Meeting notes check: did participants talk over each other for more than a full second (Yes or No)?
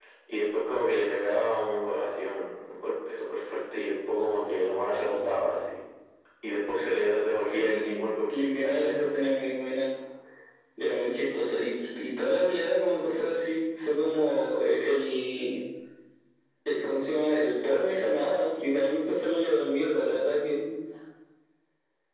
Yes